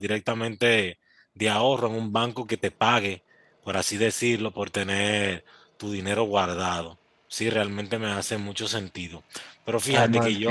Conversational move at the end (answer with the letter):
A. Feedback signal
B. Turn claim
B